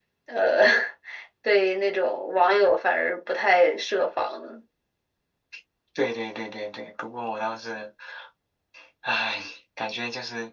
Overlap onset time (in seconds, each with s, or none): none